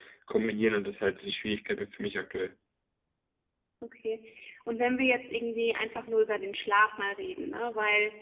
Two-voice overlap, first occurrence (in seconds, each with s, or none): none